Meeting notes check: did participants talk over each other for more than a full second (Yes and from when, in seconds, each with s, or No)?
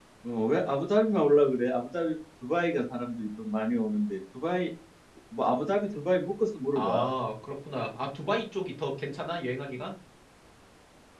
No